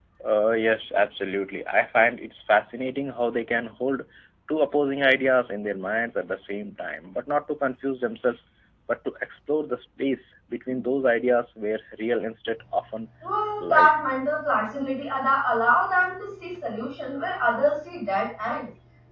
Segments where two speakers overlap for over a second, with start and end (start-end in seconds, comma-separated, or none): none